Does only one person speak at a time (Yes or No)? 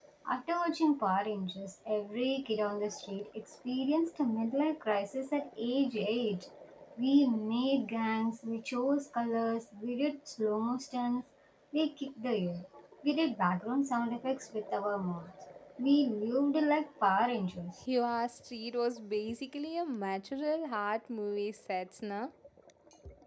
Yes